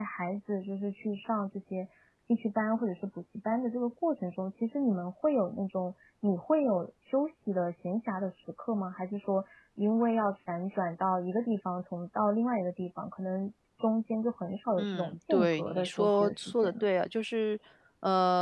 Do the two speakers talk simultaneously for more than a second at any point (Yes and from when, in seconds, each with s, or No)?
Yes, from 14.8 s